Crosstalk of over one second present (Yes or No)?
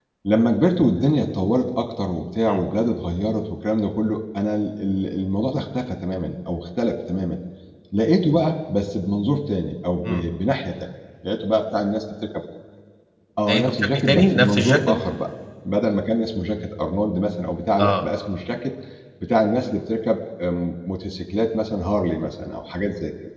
Yes